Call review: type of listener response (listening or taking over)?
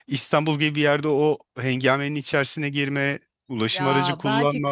taking over